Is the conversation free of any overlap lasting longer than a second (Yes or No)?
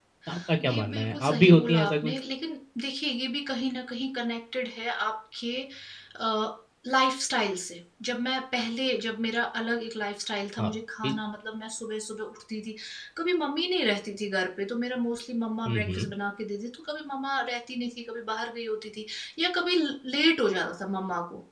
No